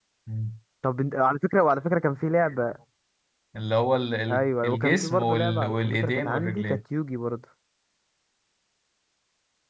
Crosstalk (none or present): present